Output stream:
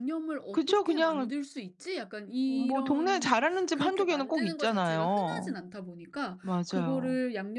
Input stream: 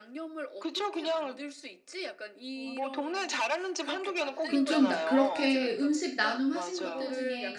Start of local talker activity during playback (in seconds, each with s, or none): 4.5 s